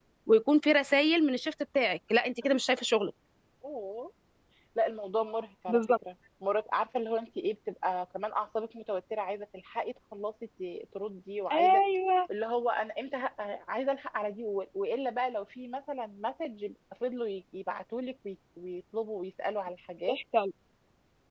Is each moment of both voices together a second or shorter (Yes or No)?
Yes